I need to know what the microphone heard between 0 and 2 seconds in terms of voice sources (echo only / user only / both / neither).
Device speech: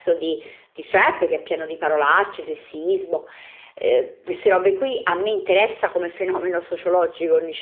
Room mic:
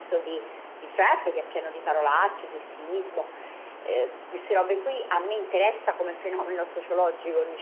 echo only